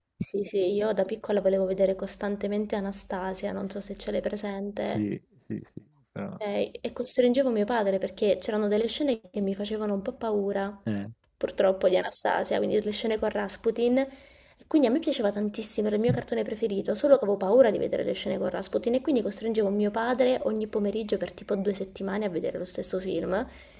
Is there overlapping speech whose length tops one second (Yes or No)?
No